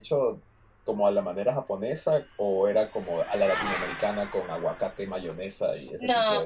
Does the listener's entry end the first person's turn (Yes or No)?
Yes